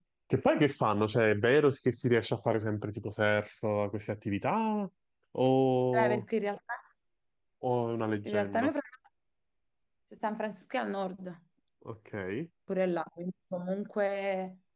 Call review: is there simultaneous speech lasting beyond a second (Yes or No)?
No